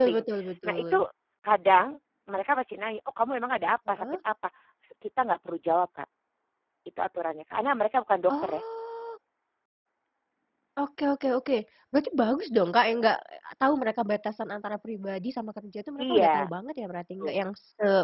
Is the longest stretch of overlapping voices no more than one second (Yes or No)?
Yes